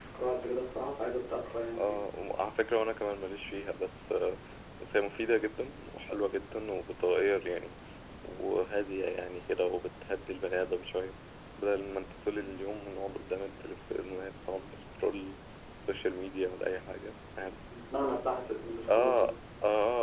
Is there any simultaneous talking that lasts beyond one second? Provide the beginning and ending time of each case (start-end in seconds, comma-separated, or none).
none